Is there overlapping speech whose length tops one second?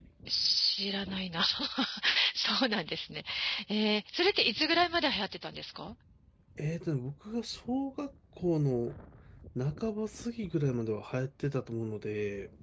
No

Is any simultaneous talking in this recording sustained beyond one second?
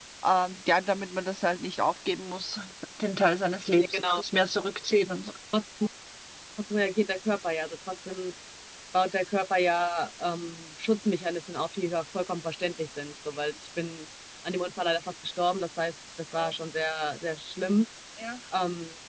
No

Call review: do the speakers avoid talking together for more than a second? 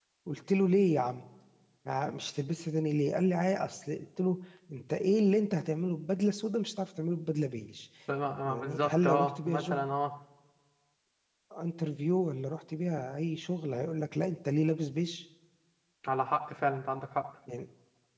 No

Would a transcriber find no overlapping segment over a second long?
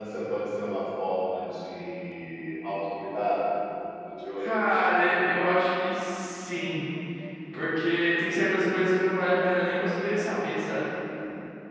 Yes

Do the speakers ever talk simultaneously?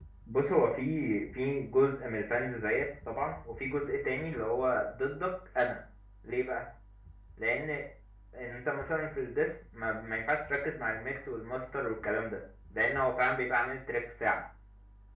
No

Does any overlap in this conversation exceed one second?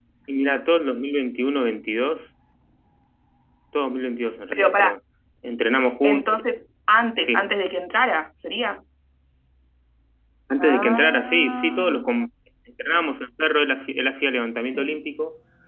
Yes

